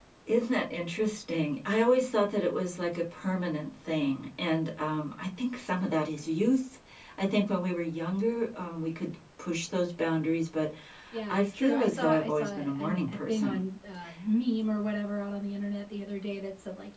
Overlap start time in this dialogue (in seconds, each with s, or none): 11.3 s